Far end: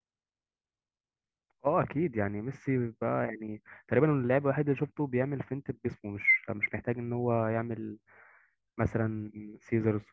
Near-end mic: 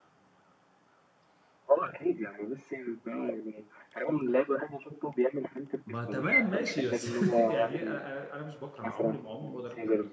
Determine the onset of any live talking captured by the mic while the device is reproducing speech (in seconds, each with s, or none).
5.8 s